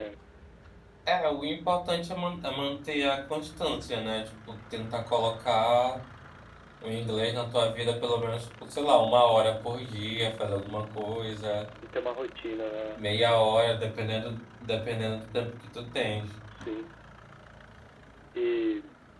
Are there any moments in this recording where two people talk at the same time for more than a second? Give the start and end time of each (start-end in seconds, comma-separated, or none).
none